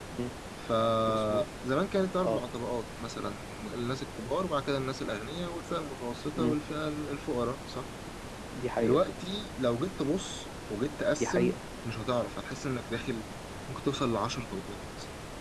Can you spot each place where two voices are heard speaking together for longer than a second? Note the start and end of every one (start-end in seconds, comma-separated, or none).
none